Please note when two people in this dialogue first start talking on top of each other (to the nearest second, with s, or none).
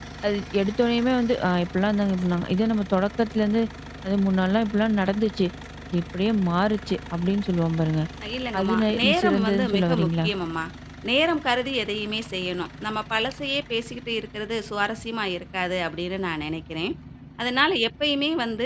9 s